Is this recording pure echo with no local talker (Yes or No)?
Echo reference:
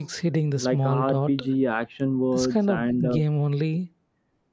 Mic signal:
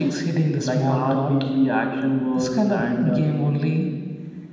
Yes